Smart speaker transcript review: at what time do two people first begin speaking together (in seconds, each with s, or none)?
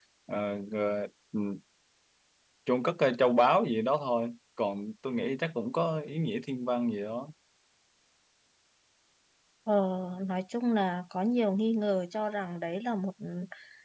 none